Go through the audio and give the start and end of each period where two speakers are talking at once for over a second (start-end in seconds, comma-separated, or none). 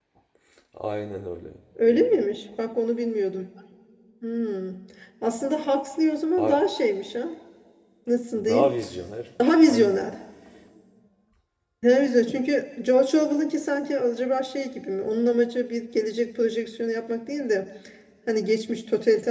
none